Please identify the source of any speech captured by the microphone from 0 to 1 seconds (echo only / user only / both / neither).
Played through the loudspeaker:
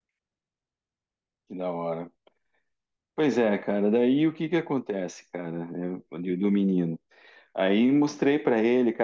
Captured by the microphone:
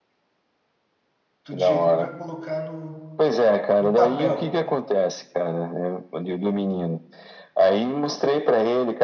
neither